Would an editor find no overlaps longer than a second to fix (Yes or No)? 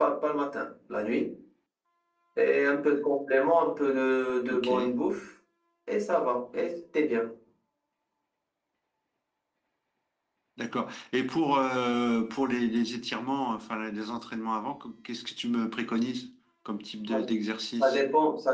Yes